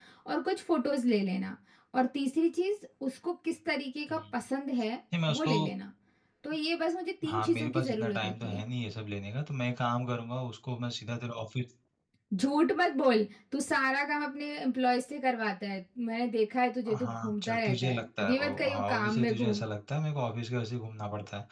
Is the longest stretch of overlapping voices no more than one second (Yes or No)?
No